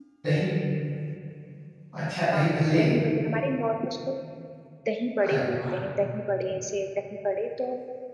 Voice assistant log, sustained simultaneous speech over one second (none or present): none